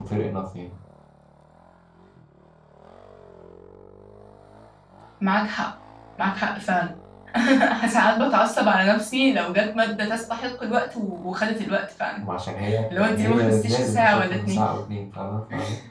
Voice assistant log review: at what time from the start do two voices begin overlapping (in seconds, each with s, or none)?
12.9 s